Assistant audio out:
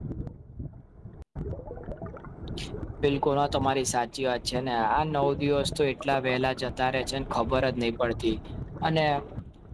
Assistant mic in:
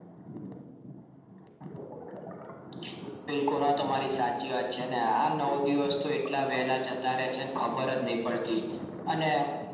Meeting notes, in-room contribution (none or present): none